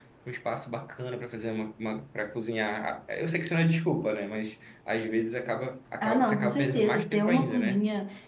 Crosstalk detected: Yes, from 6.0 s

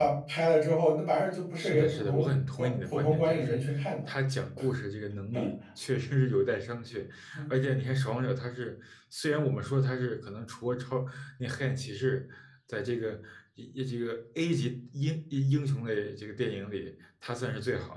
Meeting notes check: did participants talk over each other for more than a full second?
Yes, from 1.6 s

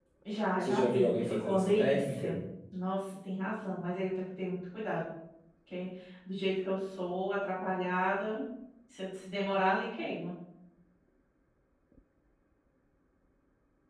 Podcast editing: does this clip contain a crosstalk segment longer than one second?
Yes, from 0.6 s

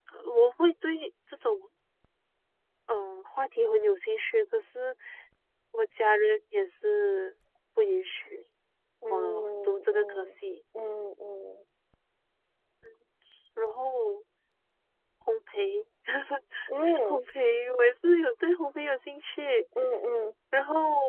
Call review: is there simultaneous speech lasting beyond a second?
Yes, from 9.1 s

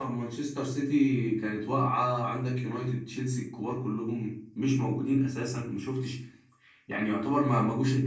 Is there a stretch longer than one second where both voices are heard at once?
No

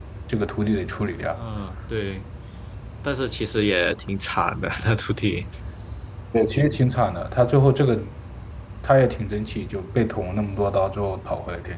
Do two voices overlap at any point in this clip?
No

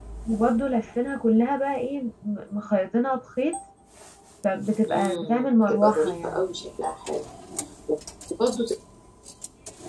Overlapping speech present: Yes, from 4.9 s

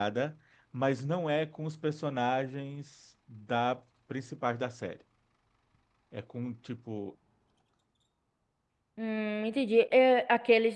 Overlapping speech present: No

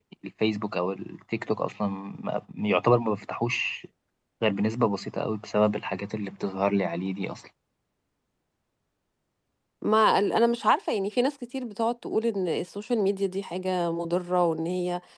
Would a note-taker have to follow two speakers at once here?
No

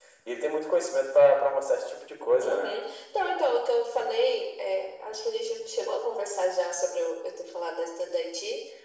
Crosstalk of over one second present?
No

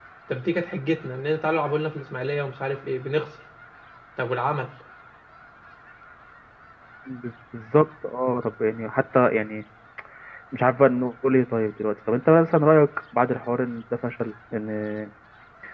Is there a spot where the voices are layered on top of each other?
No

